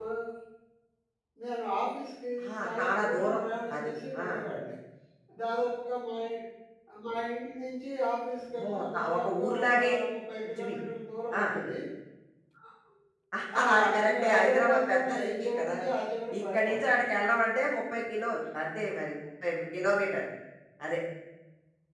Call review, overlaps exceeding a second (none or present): present